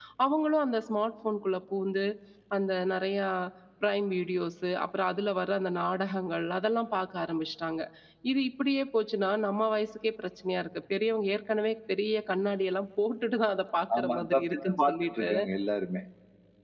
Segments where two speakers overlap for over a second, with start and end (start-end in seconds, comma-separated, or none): 14.0-15.3